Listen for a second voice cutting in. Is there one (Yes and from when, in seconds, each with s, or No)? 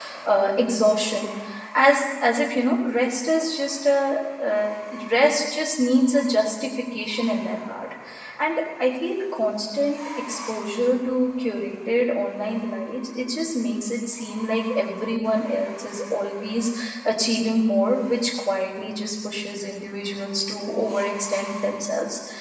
No